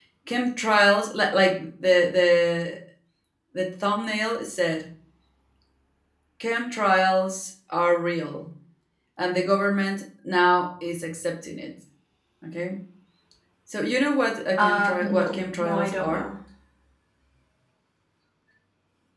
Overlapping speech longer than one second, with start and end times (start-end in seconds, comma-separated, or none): 14.6-16.3